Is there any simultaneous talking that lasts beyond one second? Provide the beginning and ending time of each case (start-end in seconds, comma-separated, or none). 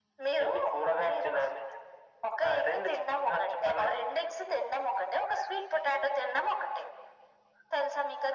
2.4-4.0